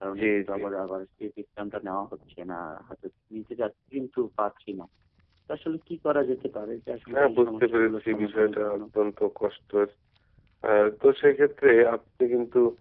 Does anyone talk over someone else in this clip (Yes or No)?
Yes